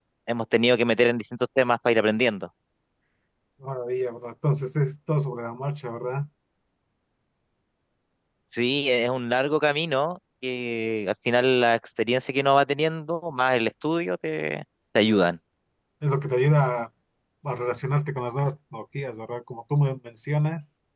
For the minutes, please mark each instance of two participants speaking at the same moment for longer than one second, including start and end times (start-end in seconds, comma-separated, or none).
none